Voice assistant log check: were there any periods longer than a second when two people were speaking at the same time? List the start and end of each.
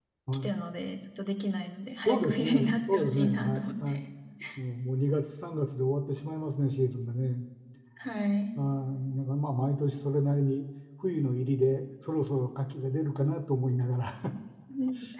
2.1-4.0

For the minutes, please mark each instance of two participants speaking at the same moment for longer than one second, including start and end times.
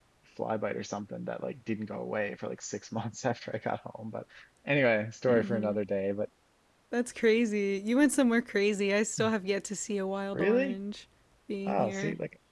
none

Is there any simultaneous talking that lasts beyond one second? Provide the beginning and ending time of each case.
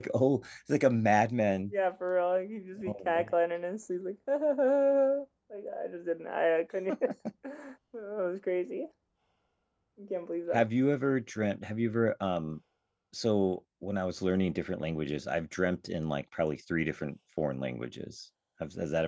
none

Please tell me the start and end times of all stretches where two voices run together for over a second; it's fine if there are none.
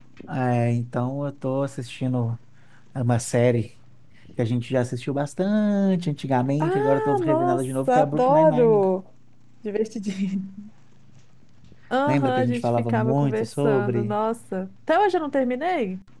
6.6-8.8, 12.1-14.2

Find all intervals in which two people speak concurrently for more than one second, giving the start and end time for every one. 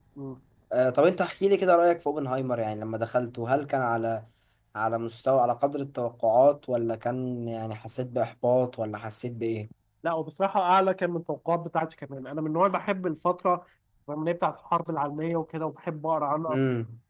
none

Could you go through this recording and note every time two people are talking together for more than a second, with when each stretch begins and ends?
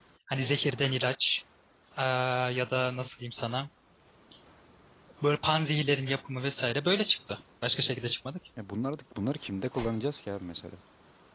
none

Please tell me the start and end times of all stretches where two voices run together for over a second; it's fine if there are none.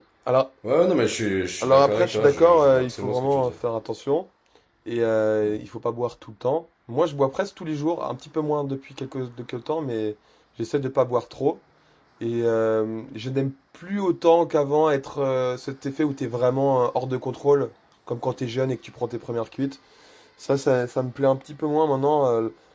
1.6-3.5

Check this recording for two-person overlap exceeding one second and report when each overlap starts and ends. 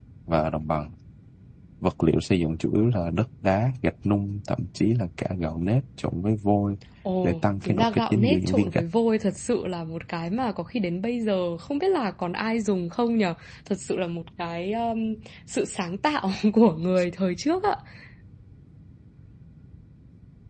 7.2-8.8

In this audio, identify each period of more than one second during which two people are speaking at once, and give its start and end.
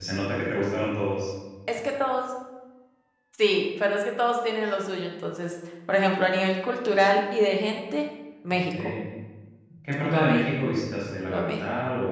none

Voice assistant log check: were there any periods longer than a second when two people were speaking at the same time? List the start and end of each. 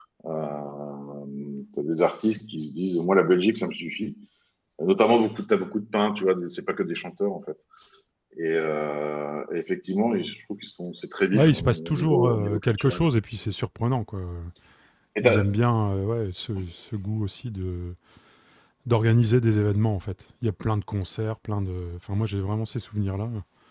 11.3-13.0

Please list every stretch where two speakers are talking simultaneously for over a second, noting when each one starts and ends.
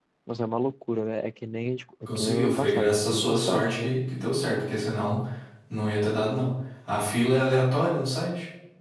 2.1-3.9

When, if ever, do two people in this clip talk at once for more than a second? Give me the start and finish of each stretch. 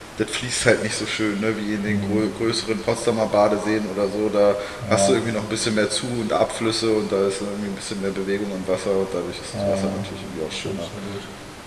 none

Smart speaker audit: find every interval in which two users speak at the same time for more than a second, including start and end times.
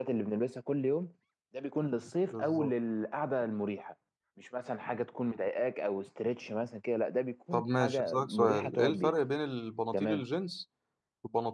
7.5-9.1

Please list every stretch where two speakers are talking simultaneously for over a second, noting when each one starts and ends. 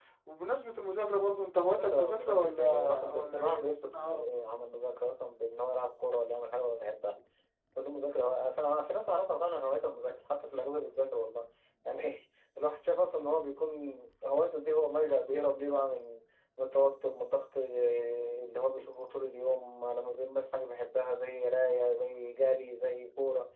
1.8-4.2

